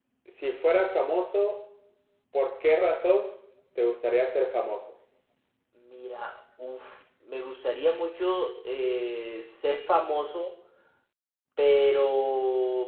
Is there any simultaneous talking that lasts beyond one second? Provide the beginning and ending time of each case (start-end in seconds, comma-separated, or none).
none